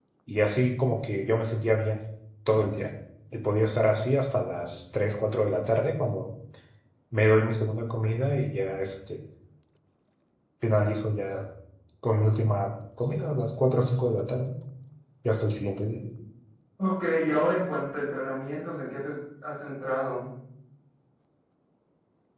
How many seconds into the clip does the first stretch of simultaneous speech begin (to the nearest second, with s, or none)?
none